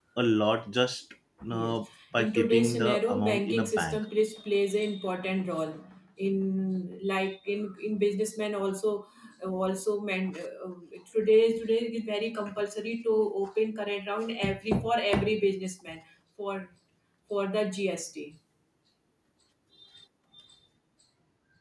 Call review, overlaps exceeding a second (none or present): present